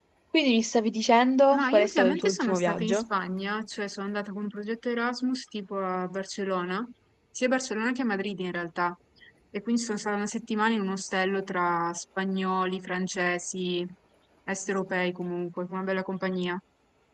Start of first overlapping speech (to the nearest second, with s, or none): 2 s